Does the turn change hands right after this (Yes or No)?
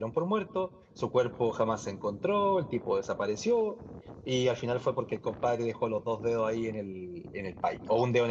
No